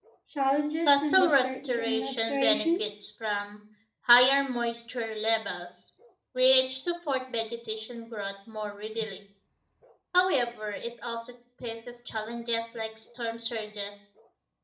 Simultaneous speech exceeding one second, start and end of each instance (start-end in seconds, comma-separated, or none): 0.9-2.8